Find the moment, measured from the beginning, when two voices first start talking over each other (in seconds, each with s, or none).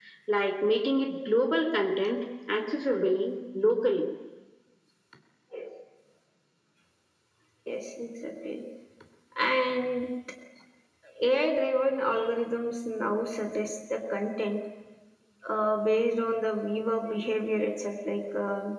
none